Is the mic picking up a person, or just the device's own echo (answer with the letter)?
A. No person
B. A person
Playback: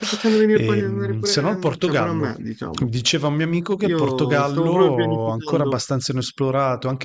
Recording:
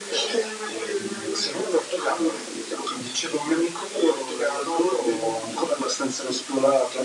A